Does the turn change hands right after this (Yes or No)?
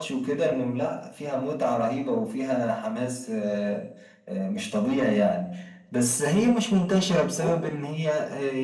No